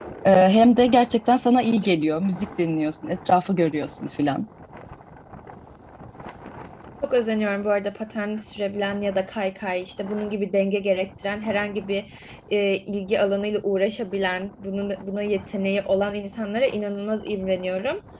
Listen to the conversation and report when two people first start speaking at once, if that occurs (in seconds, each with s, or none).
none